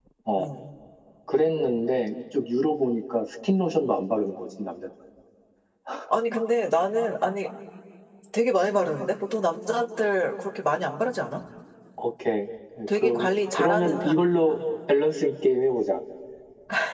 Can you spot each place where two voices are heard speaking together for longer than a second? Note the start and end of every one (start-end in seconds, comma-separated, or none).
12.9-14.6